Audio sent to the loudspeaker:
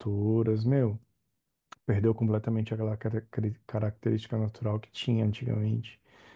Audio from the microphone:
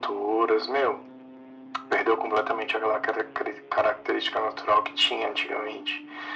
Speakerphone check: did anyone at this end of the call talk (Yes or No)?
No